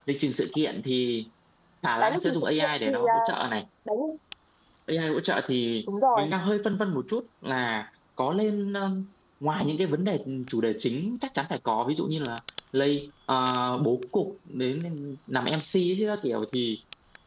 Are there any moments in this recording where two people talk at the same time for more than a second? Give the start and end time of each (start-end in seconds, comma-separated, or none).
2.0-3.3